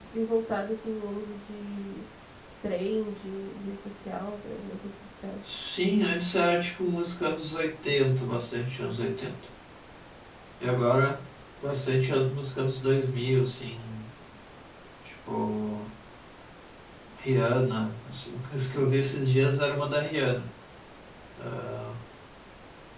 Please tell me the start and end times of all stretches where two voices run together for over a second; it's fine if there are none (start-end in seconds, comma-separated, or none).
none